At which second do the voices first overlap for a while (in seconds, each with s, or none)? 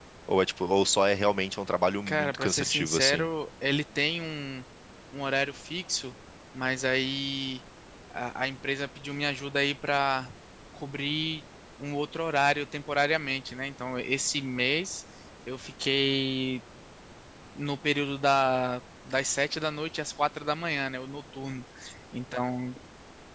2.1 s